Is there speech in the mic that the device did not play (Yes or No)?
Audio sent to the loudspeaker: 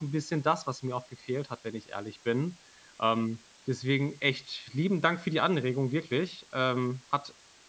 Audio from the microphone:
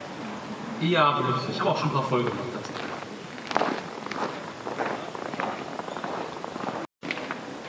Yes